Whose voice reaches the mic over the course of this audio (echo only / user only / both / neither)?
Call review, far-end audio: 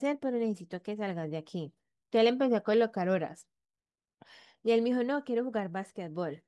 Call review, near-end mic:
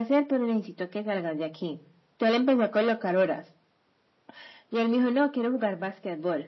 echo only